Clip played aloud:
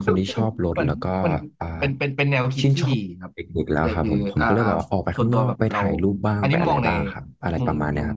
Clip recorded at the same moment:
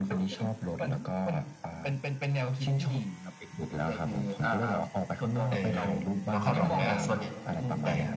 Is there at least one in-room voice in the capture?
Yes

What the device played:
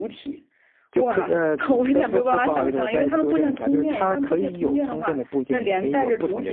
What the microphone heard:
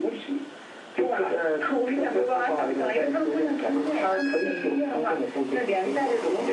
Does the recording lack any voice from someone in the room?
Yes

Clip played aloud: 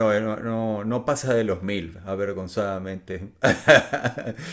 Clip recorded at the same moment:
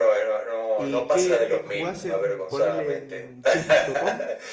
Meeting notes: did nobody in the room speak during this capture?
No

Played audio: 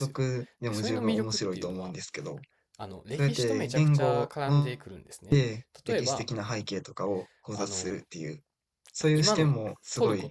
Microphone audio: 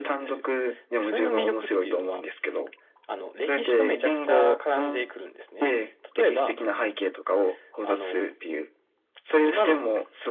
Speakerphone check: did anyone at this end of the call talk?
No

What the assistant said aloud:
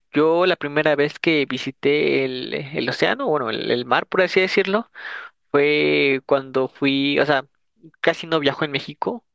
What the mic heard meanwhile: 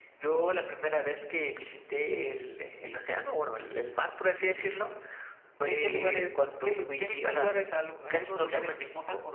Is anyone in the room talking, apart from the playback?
Yes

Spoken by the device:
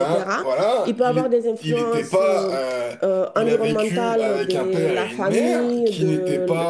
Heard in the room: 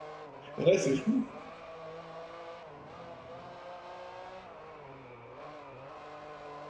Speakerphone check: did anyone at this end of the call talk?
Yes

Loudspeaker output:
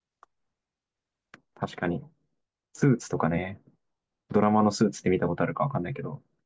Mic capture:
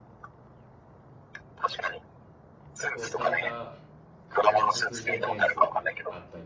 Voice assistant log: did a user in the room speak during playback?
Yes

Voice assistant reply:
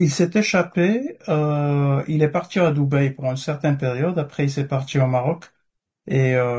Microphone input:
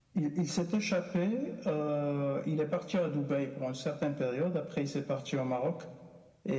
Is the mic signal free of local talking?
Yes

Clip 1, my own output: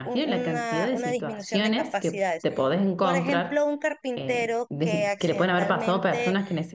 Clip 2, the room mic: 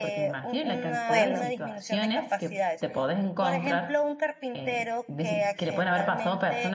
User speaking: Yes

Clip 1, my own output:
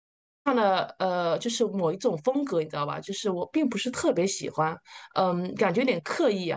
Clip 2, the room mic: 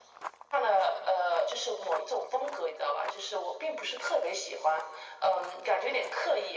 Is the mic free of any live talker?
Yes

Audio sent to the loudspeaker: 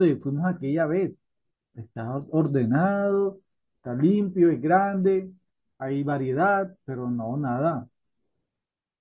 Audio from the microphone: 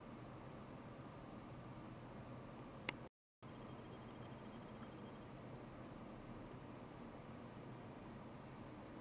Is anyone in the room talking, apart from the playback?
No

